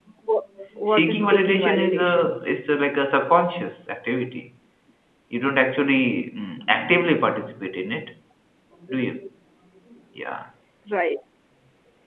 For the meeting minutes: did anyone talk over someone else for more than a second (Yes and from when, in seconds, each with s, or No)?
Yes, from 0.9 s